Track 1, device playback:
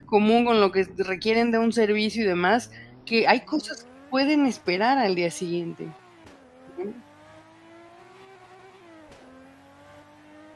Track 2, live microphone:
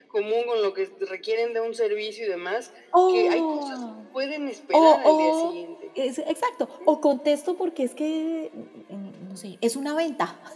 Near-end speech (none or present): present